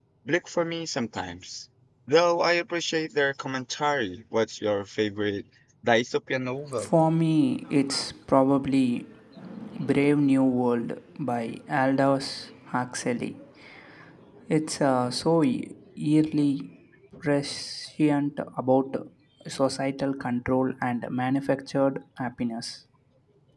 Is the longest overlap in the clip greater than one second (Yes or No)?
No